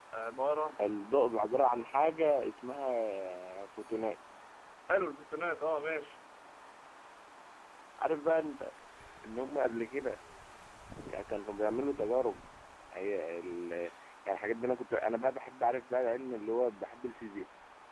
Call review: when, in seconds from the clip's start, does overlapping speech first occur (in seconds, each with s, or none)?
none